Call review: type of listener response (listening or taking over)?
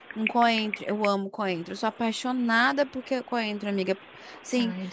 listening